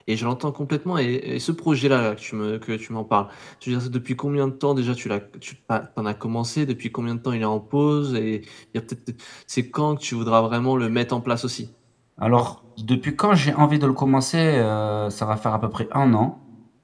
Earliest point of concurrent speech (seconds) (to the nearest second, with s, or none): none